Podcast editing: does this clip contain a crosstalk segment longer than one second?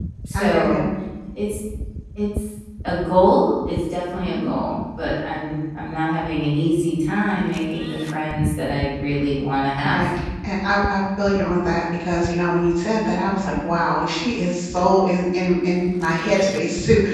No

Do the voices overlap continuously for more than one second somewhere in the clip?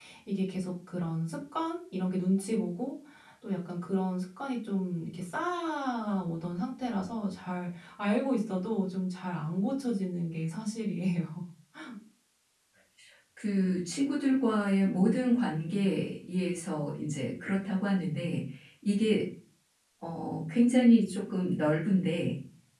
No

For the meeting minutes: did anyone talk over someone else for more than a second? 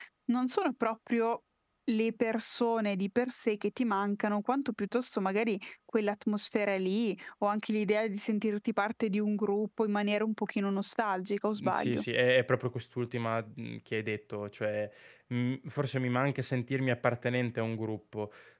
No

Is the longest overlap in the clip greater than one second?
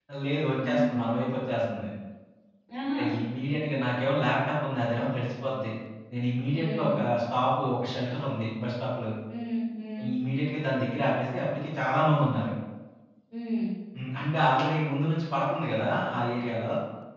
No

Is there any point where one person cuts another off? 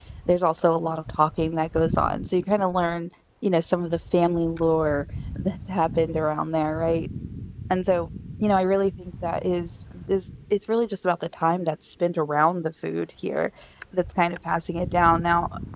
No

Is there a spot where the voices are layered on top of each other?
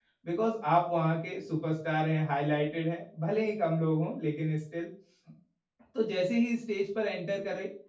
No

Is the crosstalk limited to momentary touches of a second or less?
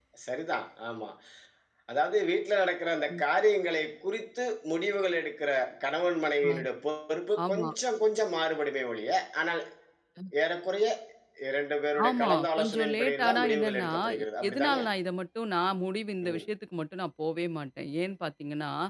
No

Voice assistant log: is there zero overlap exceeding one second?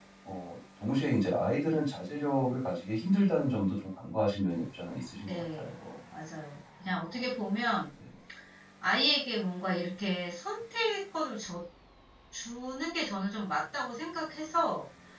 Yes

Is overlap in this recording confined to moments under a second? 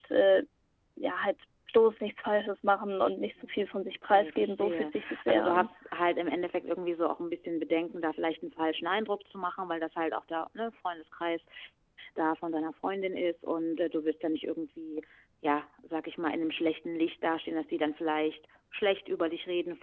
No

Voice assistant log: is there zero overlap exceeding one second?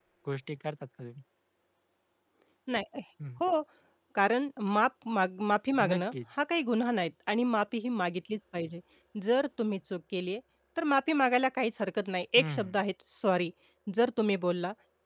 Yes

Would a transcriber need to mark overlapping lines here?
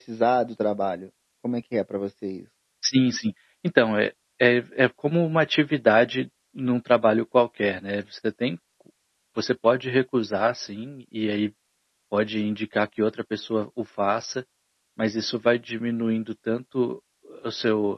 No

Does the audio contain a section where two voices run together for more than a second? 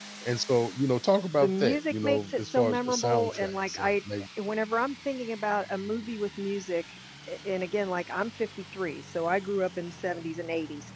Yes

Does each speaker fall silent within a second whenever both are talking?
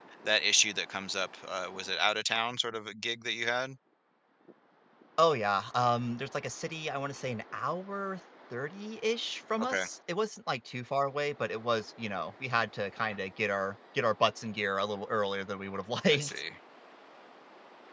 Yes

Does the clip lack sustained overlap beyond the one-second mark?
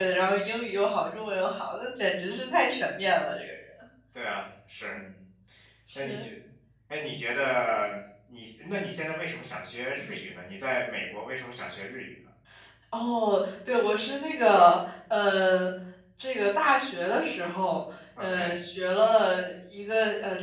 Yes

